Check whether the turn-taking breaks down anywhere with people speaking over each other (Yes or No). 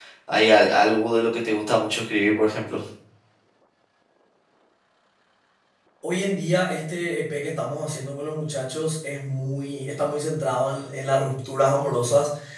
No